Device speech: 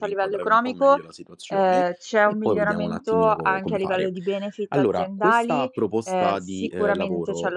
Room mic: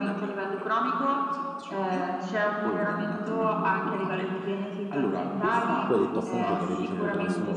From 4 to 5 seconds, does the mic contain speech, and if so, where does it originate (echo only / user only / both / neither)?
echo only